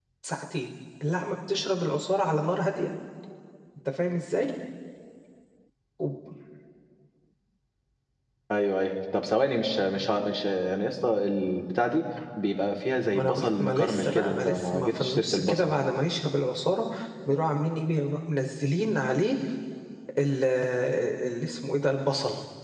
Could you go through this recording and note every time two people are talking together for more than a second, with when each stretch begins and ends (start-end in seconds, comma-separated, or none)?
13.1-15.7